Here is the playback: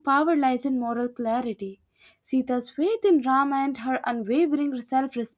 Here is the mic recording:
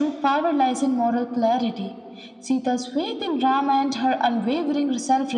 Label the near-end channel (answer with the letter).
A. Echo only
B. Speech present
A